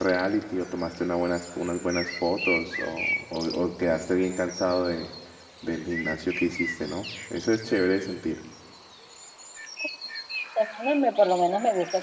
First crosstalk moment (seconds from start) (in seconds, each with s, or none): none